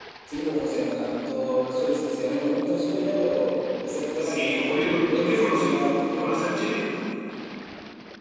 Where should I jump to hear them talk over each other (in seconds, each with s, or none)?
4.2 s